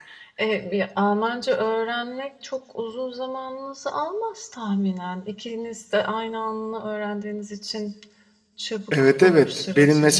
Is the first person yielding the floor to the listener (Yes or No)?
Yes